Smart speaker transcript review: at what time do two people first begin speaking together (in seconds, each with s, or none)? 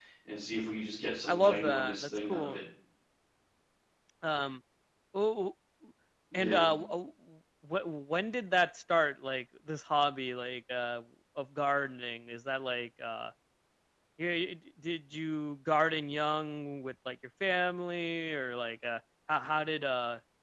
1.3 s